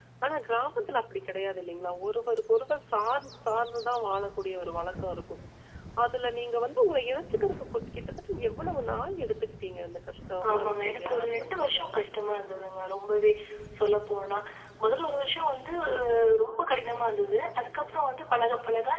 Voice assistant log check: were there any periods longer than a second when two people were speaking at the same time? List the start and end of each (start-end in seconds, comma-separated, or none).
10.5-11.9